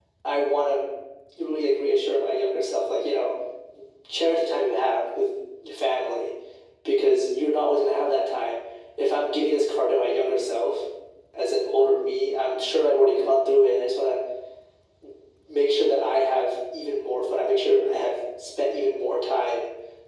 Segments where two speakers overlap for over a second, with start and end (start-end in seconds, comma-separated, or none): none